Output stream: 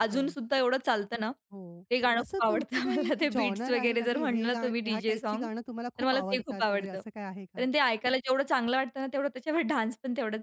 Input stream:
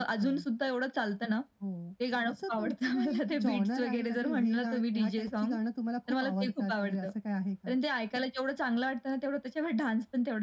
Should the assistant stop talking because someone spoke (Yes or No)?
No